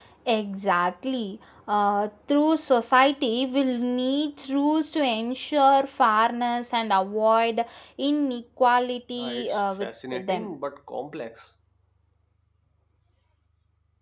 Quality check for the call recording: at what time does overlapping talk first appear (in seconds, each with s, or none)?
9.2 s